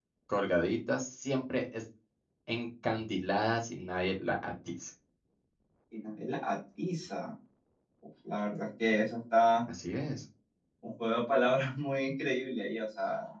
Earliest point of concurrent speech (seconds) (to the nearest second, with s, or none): none